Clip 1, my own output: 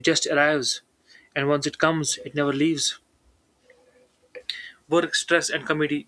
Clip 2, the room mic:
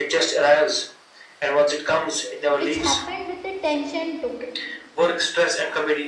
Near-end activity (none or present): present